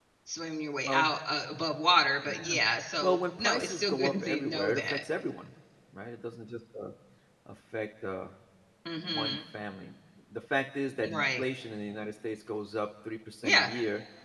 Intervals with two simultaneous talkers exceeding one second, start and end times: 3.0-5.0

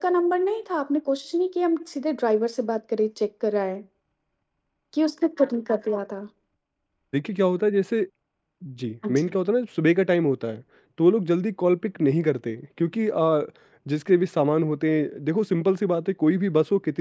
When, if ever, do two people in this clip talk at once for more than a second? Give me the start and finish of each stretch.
none

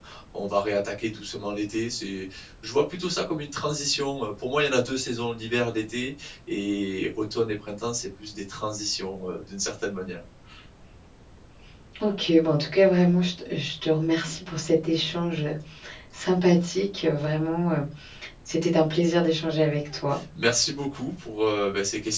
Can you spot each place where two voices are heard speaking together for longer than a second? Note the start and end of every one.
none

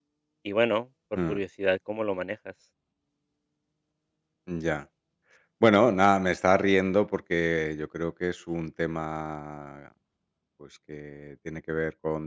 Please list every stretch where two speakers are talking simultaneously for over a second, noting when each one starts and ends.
none

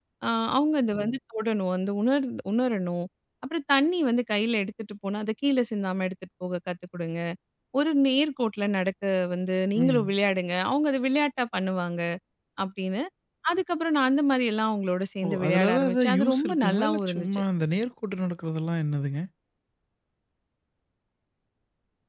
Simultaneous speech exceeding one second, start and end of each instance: 15.2-17.4

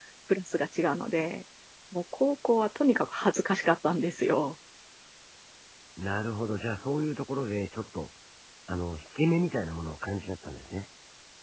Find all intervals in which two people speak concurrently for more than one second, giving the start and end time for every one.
none

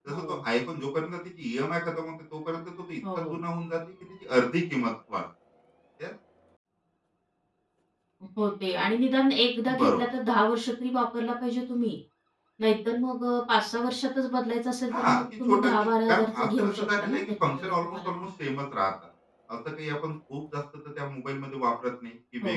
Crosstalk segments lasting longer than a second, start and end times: 14.9-18.3

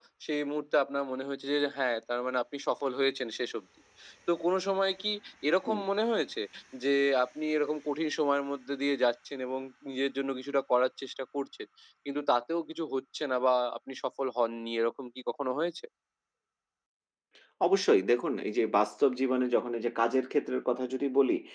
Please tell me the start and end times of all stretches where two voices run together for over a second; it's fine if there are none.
none

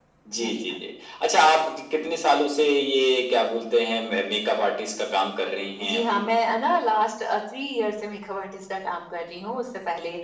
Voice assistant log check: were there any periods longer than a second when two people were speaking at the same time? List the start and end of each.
none

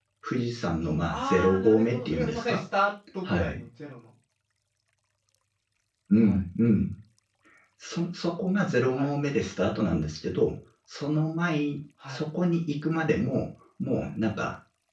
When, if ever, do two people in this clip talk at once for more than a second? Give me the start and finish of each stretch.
1.1-2.6

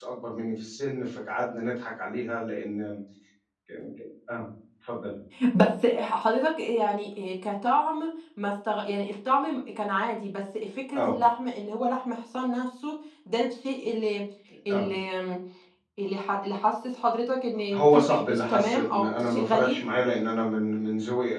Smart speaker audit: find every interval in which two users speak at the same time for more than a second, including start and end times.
17.7-19.8

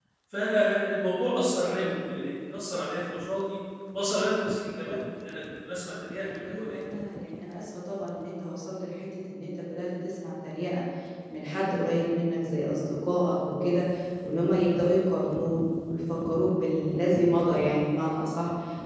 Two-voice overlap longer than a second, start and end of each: none

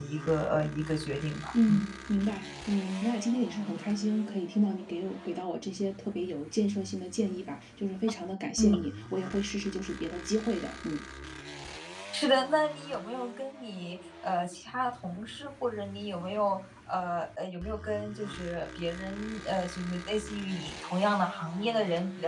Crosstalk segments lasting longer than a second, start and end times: none

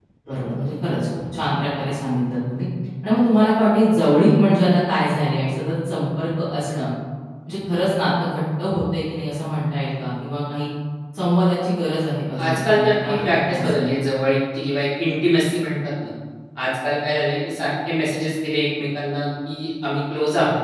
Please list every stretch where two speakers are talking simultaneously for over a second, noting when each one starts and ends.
12.5-14.0

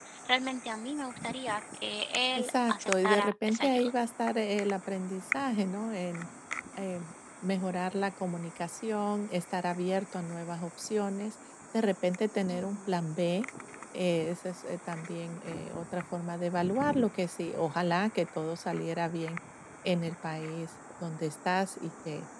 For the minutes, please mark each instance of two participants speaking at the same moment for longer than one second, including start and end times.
2.4-3.9

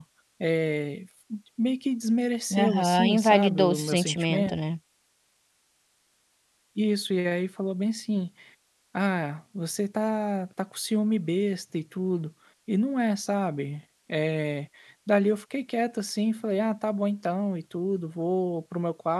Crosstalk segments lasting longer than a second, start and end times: 2.5-4.6

